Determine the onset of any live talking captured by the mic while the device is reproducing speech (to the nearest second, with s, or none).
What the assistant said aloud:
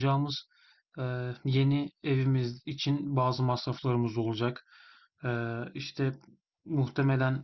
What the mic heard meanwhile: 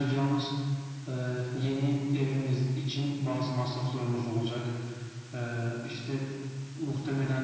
none